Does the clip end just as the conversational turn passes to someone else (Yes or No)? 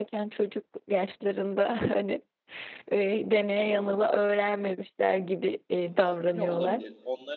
Yes